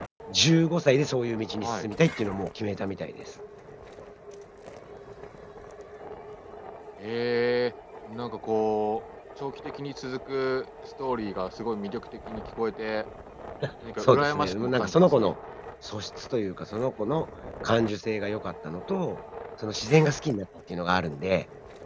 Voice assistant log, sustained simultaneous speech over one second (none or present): present